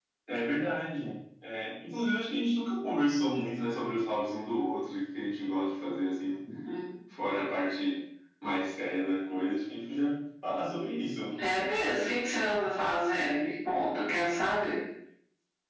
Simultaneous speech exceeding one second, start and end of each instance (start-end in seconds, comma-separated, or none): none